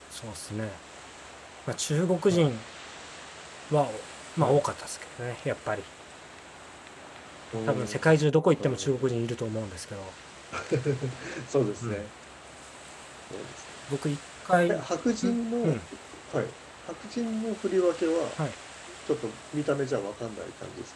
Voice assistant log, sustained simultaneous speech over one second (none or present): none